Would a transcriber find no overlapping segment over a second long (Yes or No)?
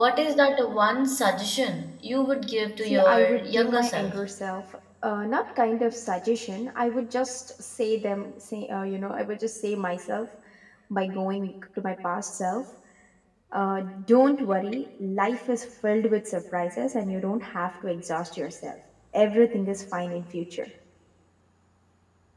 No